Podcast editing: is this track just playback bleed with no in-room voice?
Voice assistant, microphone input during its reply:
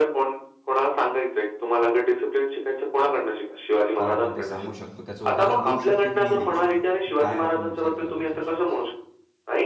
No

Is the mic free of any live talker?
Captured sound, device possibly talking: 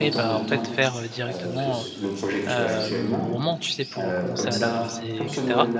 No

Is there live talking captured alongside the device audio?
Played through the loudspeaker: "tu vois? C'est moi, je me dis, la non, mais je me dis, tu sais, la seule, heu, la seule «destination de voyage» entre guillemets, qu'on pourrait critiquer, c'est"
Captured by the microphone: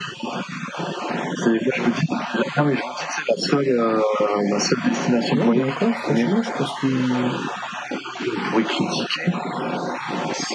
Yes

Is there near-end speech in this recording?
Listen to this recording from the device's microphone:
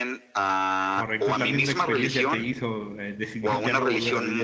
Yes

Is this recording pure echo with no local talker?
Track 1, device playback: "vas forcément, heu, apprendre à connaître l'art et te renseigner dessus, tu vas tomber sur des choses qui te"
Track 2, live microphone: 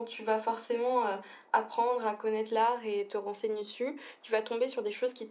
Yes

